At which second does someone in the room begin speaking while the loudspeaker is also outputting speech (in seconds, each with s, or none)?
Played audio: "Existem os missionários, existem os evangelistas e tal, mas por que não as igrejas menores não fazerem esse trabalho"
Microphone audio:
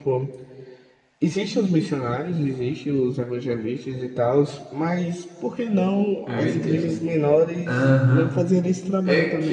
6.2 s